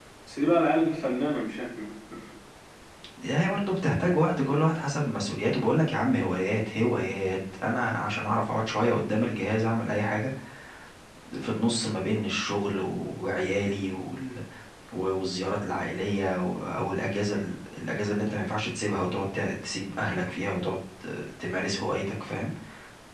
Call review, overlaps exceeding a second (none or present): none